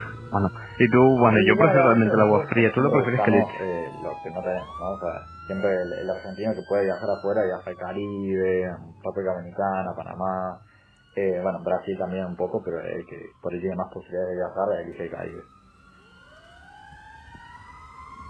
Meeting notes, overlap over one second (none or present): present